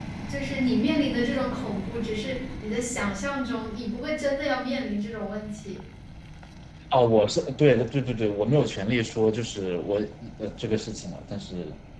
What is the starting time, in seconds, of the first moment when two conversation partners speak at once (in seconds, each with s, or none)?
none